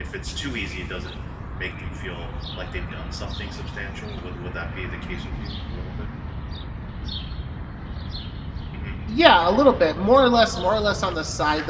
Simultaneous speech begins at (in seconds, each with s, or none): none